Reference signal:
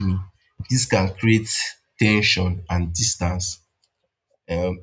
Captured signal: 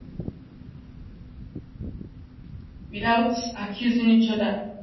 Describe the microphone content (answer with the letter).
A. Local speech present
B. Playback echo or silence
A